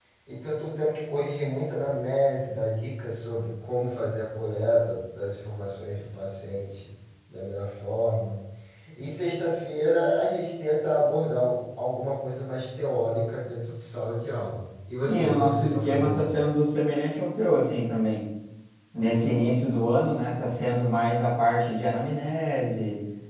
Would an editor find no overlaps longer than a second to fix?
No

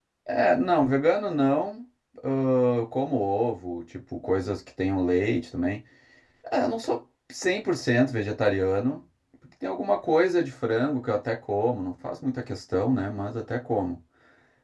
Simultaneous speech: No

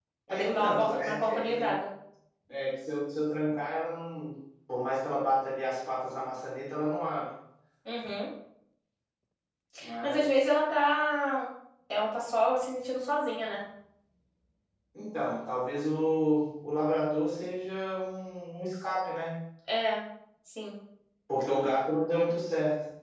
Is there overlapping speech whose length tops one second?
Yes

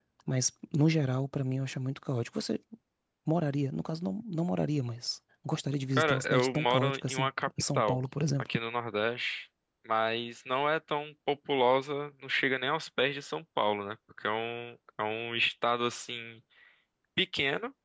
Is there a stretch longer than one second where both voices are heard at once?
Yes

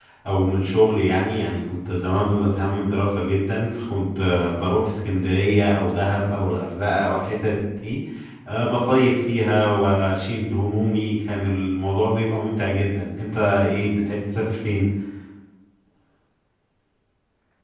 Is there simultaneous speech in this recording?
No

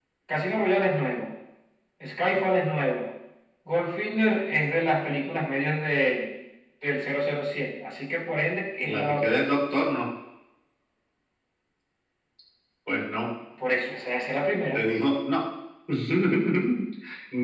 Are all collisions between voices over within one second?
Yes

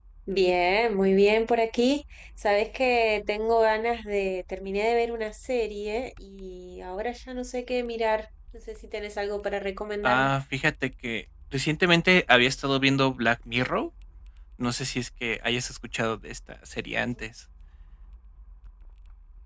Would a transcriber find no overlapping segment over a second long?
Yes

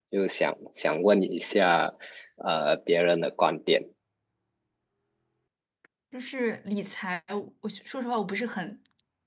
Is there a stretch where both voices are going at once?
No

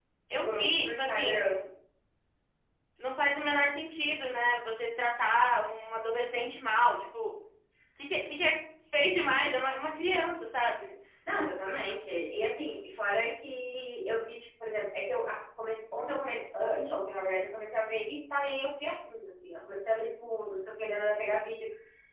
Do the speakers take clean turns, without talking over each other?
No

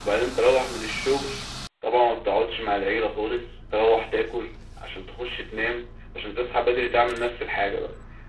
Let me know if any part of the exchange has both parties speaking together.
No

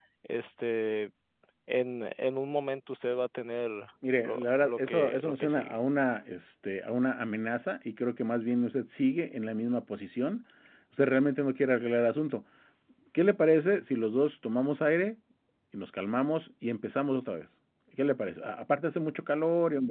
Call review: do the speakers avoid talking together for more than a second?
No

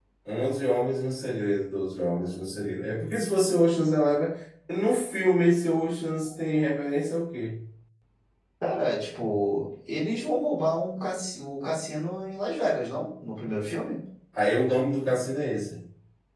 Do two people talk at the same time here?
No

